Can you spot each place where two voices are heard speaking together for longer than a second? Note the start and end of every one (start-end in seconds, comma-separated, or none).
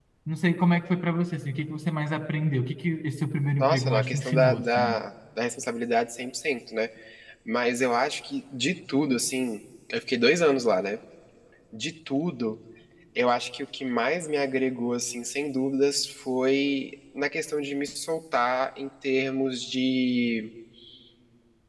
3.6-5.0